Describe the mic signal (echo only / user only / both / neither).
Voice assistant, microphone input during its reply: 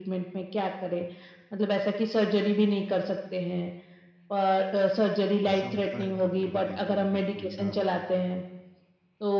both